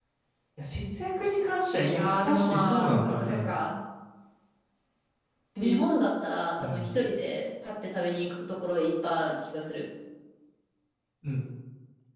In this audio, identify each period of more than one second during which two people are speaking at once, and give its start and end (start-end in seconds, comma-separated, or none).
2.0-3.5